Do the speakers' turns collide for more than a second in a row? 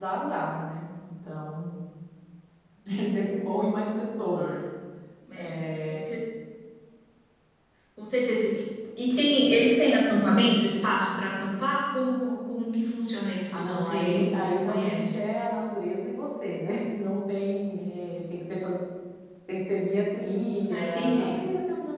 Yes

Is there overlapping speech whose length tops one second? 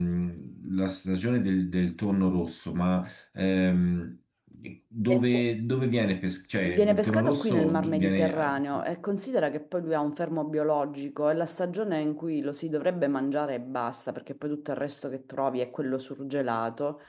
Yes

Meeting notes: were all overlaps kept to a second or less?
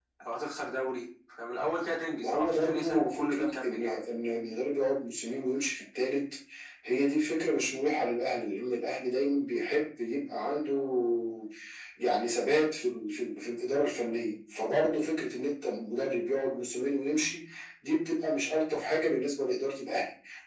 No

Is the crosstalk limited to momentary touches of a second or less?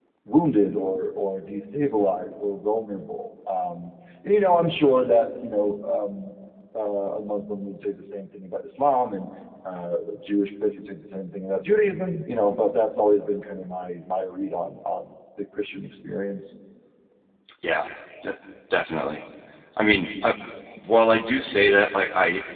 Yes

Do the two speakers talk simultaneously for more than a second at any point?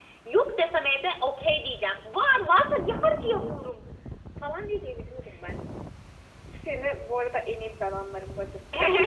No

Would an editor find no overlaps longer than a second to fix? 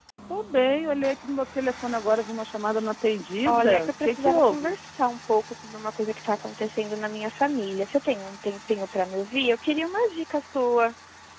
No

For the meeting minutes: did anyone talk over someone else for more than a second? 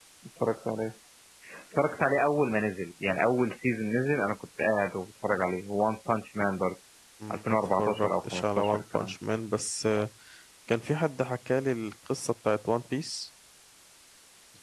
Yes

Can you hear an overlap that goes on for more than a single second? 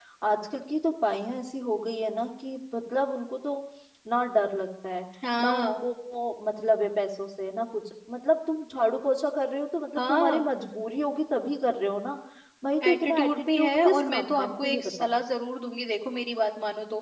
Yes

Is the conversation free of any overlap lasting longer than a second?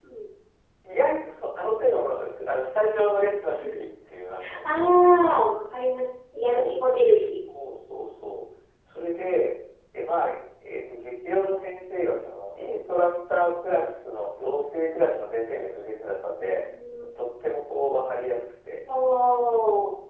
Yes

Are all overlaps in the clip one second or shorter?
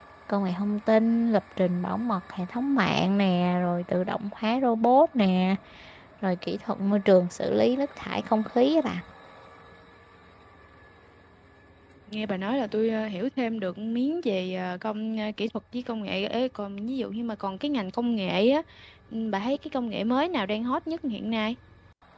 Yes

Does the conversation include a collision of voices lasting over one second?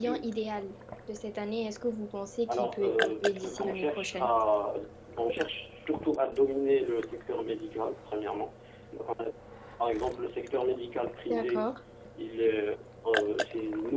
Yes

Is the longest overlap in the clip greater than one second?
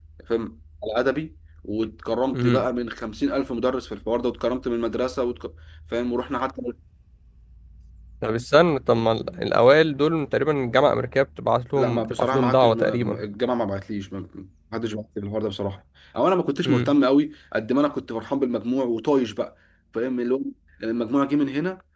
Yes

